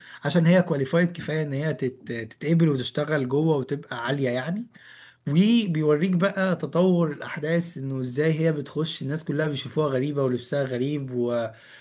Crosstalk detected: No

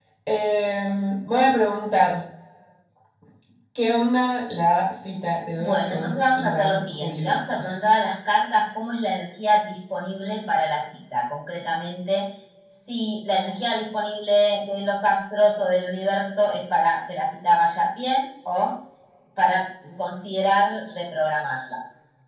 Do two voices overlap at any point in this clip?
Yes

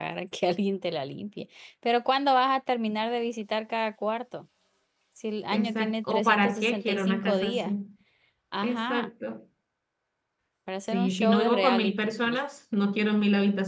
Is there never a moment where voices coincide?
No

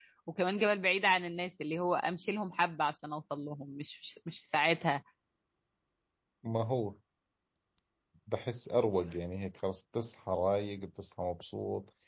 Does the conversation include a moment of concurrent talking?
No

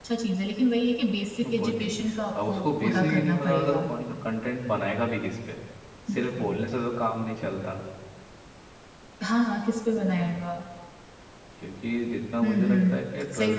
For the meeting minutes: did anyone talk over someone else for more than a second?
Yes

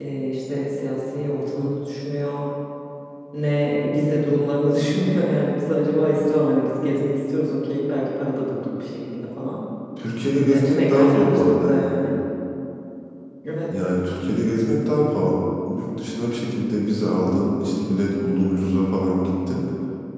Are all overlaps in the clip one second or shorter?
No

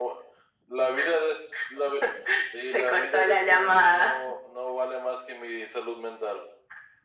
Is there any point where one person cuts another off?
Yes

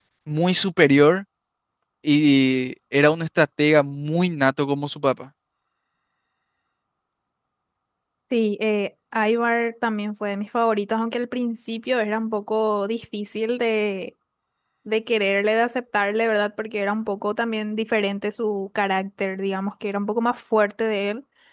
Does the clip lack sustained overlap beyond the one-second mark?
Yes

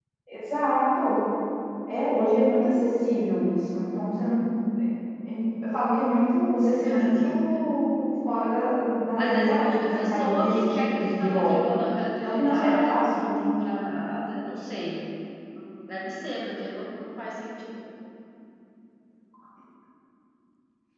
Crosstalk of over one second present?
Yes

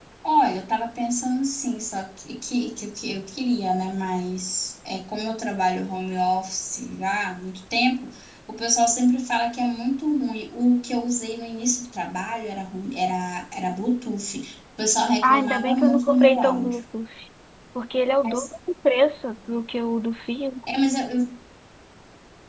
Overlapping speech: Yes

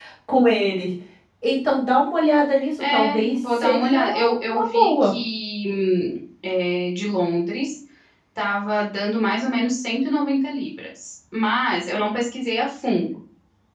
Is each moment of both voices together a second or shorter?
No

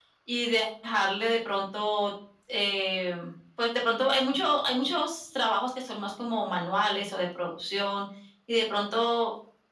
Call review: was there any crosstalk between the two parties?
No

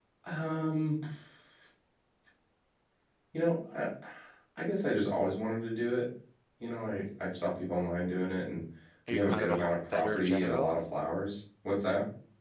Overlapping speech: Yes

